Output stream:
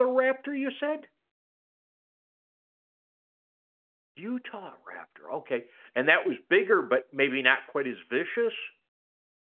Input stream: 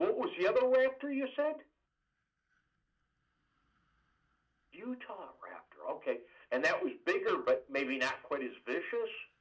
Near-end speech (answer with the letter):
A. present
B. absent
B